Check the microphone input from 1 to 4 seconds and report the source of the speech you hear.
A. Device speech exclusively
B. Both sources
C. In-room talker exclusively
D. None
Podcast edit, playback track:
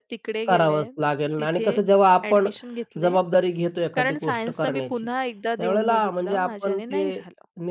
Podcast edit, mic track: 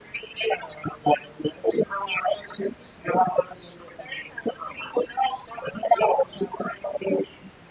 A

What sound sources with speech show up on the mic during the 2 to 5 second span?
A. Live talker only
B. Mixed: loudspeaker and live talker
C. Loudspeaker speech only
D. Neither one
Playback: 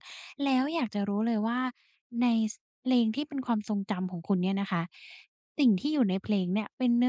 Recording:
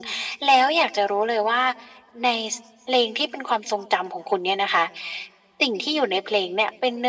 C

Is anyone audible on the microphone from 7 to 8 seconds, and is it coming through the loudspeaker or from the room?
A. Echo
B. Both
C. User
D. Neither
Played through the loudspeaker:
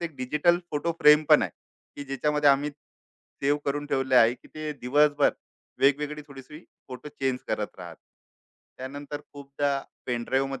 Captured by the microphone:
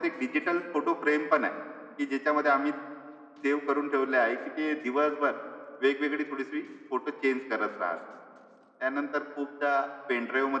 A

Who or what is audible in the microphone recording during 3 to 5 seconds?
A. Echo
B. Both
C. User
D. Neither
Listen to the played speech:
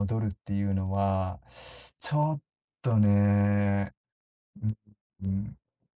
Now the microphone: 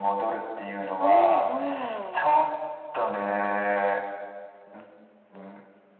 A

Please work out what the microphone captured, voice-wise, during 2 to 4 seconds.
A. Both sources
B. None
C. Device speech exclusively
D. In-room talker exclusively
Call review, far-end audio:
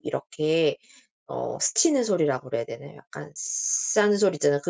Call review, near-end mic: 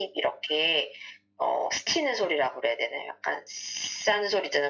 C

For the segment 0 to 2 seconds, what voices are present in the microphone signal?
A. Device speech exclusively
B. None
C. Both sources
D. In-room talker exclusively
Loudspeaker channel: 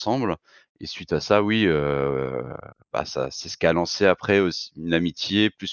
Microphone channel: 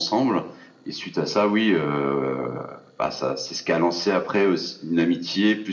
A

